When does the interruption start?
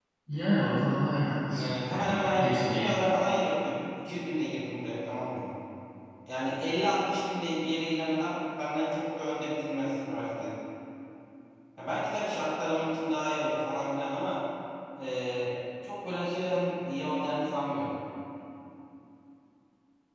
1.5 s

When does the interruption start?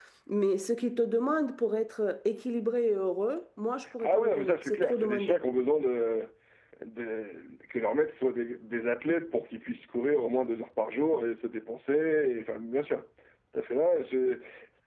4.0 s

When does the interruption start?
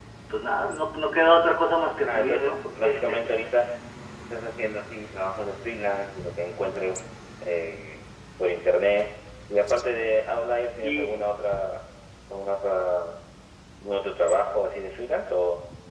2.1 s

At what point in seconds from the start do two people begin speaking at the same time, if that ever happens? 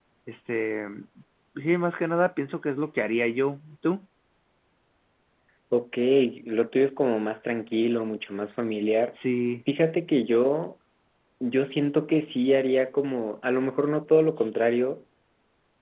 none

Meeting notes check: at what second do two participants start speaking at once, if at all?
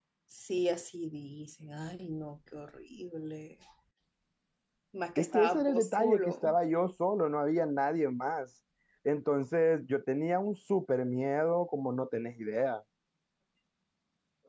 5.2 s

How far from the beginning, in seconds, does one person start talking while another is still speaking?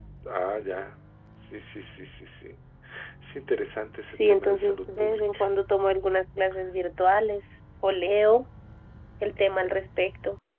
4.1 s

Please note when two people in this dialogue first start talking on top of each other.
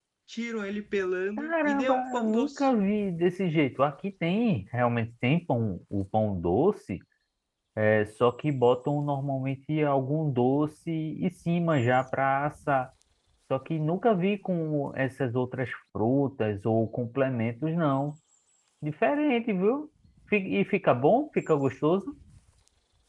1.4 s

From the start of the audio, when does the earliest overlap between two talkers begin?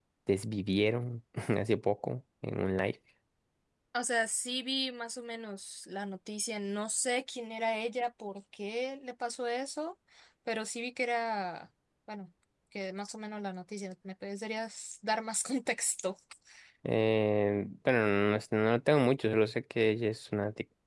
none

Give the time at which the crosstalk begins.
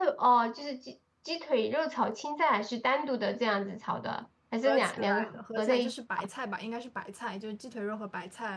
4.6 s

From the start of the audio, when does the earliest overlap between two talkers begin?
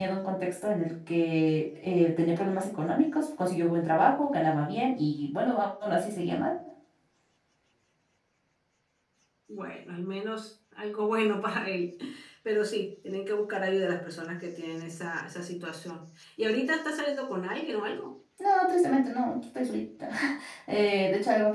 none

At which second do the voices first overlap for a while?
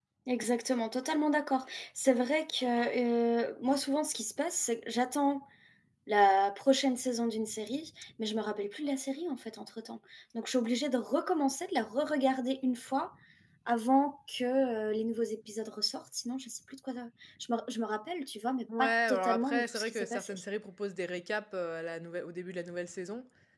18.7 s

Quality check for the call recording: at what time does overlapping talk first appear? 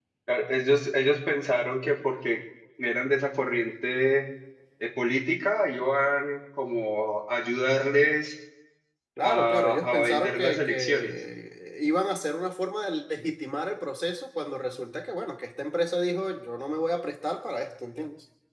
9.2 s

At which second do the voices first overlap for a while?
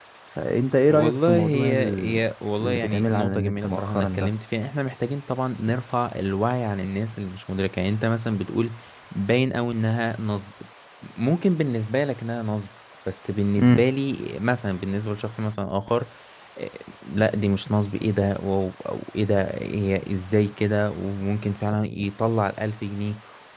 0.9 s

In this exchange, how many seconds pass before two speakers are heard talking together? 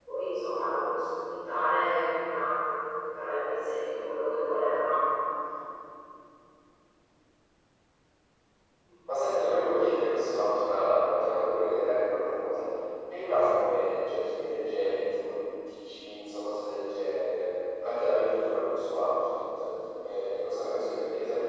none

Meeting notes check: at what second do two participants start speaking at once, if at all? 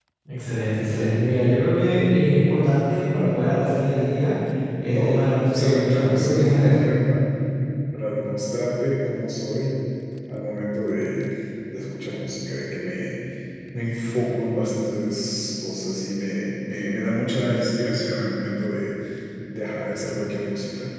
5.0 s

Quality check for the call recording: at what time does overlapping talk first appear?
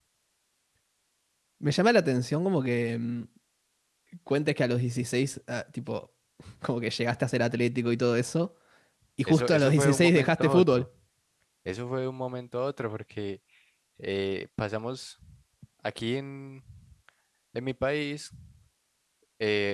9.3 s

